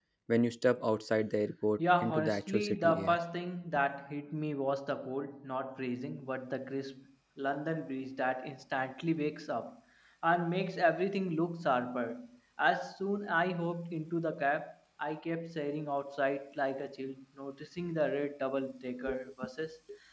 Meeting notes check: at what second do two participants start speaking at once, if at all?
1.8 s

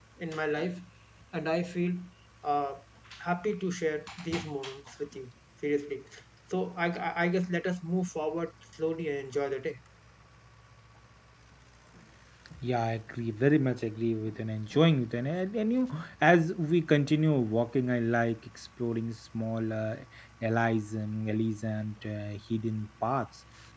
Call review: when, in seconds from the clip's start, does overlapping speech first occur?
none

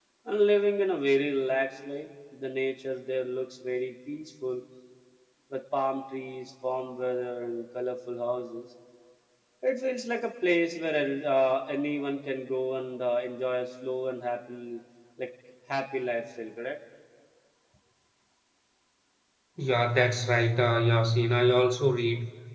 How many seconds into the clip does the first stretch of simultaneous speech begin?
none

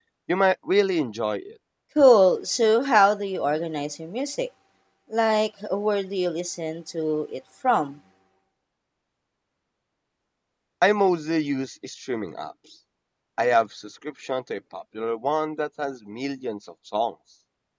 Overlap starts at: none

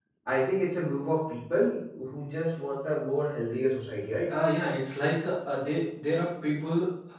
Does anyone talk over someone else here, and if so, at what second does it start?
none

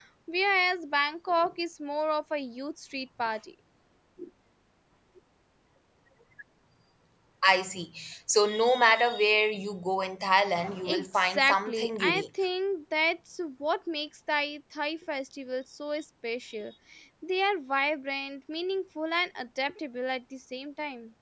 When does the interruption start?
10.8 s

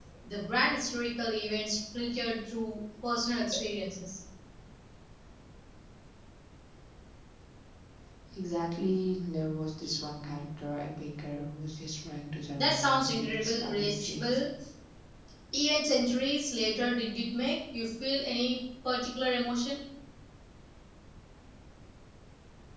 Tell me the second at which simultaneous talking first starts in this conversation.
12.6 s

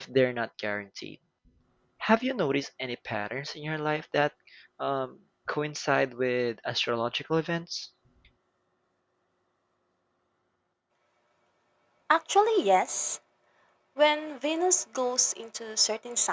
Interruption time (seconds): none

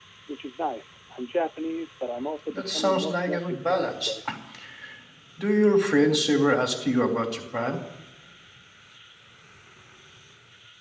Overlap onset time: 2.5 s

